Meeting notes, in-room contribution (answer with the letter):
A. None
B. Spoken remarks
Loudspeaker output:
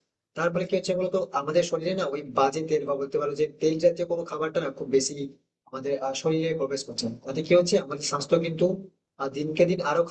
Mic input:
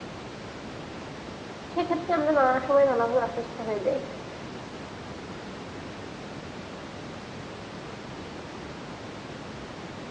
B